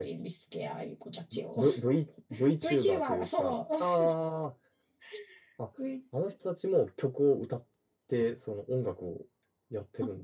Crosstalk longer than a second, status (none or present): present